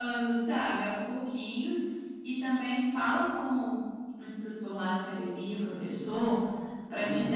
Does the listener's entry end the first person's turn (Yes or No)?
No